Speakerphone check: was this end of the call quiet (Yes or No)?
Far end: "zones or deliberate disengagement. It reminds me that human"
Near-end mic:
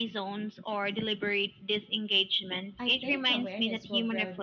No